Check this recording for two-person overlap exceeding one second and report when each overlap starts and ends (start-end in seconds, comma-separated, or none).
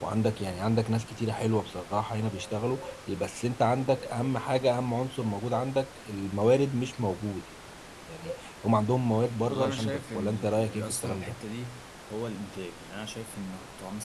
9.5-11.4